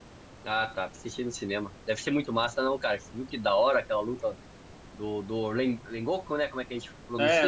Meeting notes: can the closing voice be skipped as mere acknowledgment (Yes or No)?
No